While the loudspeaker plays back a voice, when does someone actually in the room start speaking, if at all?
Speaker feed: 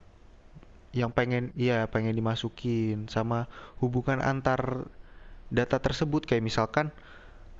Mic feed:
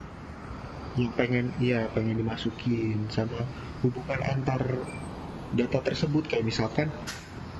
none

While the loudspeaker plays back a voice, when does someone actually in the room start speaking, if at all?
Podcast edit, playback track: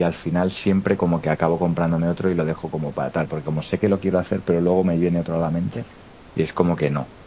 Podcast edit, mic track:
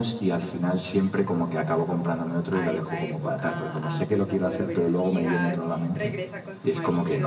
2.5 s

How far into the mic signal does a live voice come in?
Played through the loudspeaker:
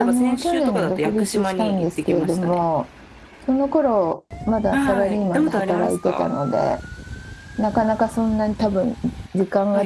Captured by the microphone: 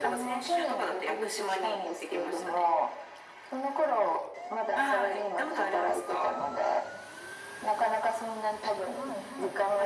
8.9 s

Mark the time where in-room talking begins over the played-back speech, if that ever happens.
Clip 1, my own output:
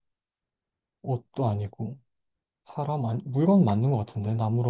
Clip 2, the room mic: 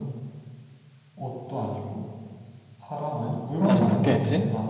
3.6 s

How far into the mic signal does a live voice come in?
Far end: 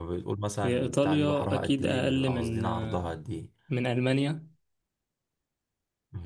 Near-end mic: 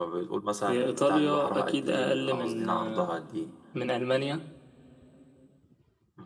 none

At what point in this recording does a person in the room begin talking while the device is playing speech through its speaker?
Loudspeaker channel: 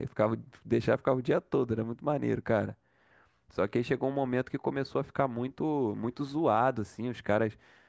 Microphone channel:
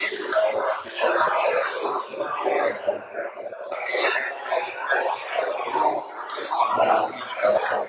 none

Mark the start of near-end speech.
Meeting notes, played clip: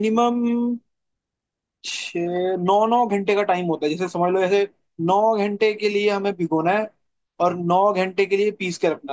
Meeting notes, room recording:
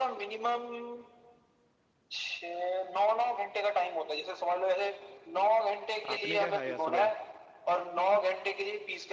6.1 s

